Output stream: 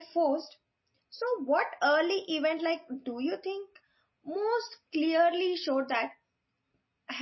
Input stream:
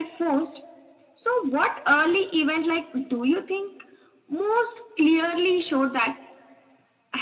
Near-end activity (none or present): none